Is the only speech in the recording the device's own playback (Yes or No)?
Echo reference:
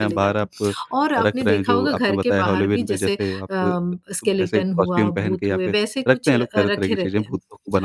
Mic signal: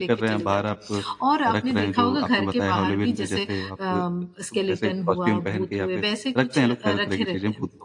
Yes